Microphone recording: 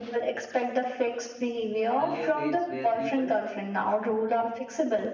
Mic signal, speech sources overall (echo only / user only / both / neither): both